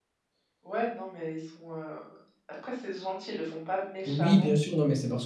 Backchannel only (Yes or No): No